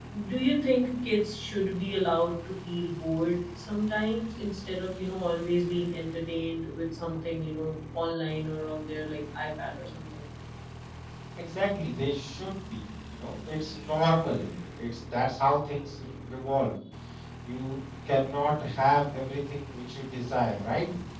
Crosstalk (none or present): none